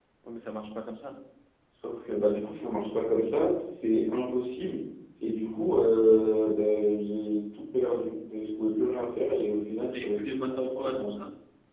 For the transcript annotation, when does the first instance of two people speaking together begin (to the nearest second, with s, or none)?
10 s